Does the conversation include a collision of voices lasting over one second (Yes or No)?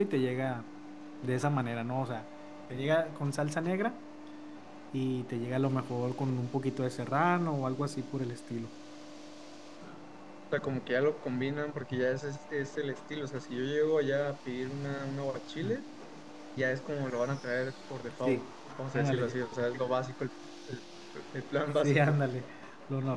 No